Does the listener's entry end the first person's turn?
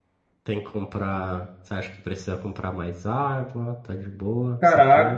Yes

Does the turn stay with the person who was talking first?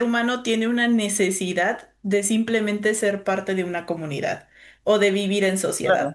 No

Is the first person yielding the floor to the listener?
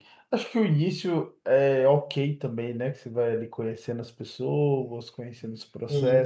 No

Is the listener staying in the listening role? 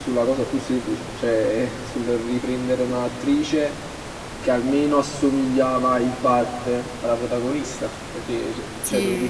Yes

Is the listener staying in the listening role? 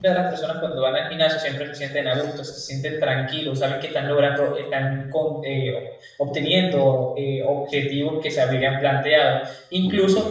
Yes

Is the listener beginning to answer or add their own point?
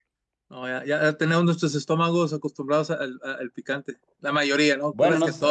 Yes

